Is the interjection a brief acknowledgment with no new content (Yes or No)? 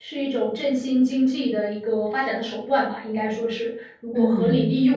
No